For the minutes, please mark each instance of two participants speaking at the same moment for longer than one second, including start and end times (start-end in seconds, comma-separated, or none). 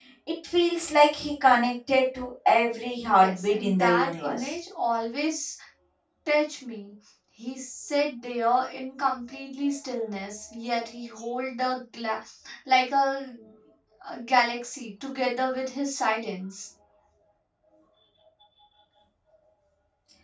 3.1-4.5